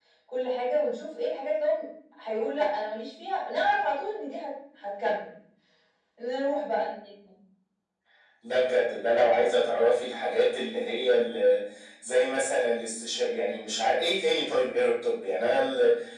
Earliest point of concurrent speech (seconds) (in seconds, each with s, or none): none